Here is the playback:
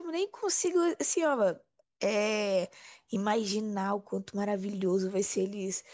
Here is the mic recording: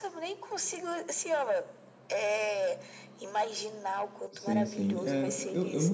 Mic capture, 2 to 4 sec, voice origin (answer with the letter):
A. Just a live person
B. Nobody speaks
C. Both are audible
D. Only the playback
D